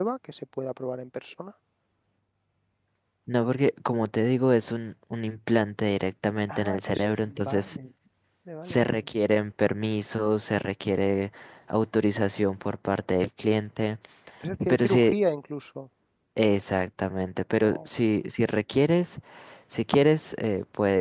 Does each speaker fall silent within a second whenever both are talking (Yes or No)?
No